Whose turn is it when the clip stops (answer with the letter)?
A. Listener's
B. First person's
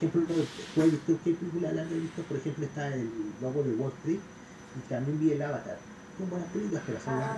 A